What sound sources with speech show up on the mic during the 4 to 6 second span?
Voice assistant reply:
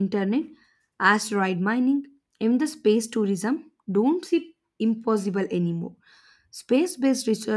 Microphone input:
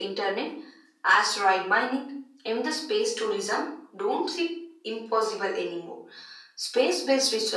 echo only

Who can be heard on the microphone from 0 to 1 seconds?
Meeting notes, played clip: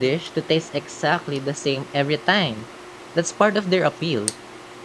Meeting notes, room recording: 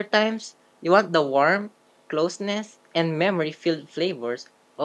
user only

